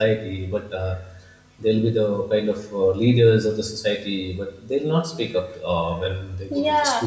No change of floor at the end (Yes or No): No